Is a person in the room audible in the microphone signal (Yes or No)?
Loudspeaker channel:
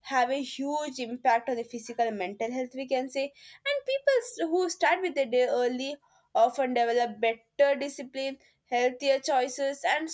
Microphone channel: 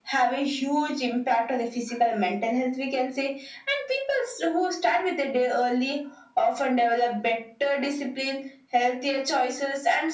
No